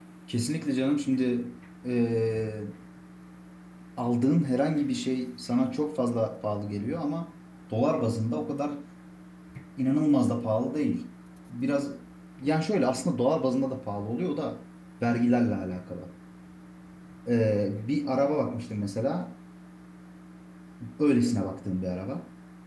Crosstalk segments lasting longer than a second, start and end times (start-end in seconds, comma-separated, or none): none